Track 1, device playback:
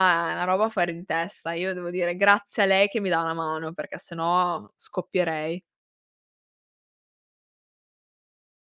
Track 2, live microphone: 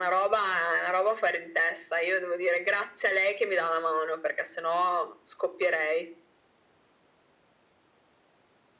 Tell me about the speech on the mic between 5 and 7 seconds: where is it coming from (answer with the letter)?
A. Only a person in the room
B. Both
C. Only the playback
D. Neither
C